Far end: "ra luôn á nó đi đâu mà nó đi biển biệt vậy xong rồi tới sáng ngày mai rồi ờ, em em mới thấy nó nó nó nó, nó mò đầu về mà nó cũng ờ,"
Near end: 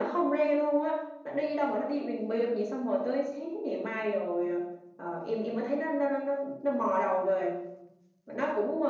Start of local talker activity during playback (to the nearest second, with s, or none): none